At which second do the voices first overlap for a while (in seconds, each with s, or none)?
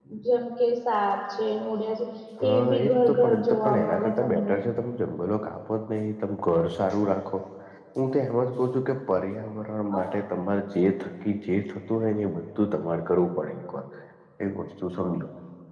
2.5 s